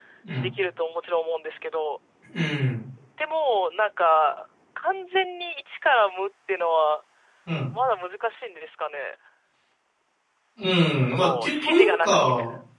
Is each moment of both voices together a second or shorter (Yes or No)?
No